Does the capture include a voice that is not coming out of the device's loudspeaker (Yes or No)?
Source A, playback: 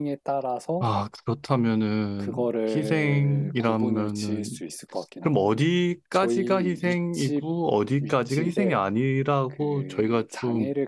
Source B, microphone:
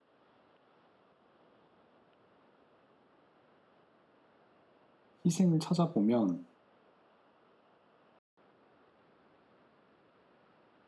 Yes